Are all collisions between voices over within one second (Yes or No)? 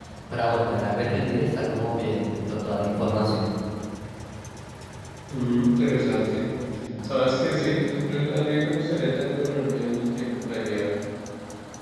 Yes